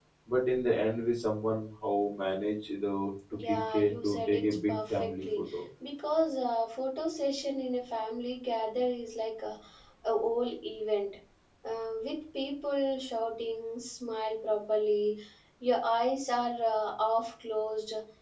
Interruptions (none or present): present